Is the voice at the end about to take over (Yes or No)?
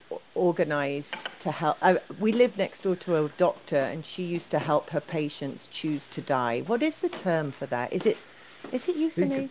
Yes